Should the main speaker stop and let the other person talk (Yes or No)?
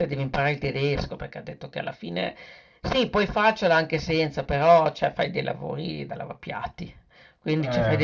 No